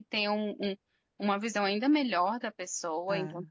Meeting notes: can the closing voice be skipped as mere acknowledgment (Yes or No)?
Yes